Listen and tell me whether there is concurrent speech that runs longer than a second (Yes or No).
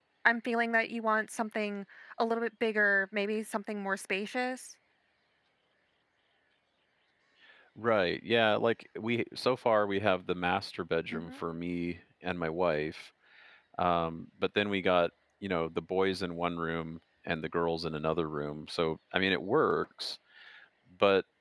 No